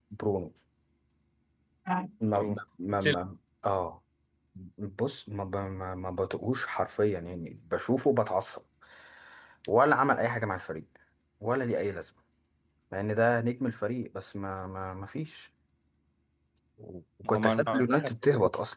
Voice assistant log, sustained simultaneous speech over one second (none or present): present